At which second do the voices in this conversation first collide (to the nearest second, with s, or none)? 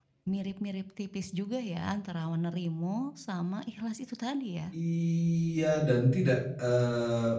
none